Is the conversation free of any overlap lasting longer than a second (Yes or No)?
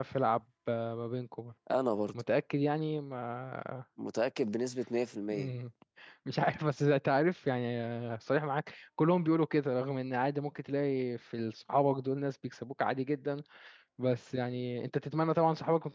Yes